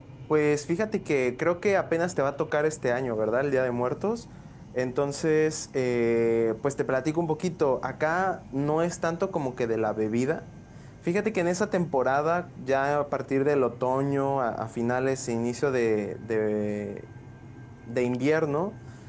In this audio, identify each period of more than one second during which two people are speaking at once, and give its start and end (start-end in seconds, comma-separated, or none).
none